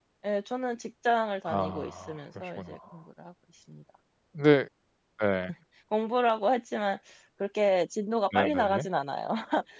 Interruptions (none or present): present